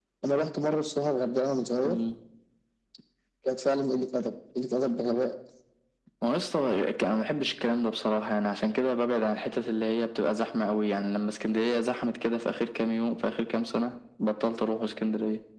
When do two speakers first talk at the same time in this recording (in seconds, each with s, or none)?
none